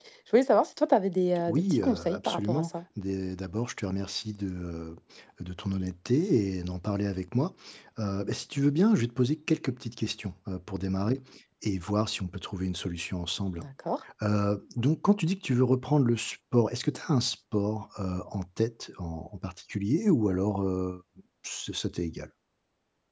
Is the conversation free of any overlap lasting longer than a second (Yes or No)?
No